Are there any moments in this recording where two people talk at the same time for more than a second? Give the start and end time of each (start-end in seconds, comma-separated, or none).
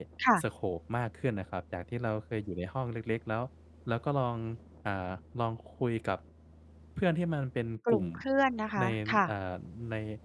none